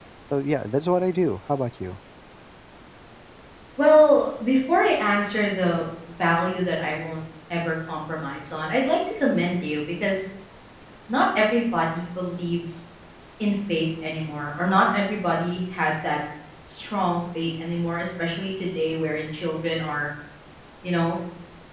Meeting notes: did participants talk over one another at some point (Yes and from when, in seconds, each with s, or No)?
No